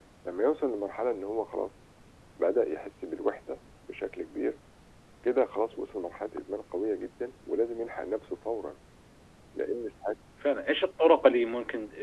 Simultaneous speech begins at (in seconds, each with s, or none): none